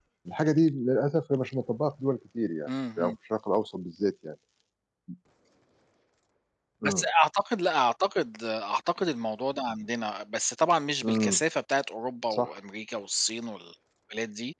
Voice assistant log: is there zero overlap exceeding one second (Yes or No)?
Yes